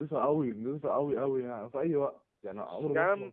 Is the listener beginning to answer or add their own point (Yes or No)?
No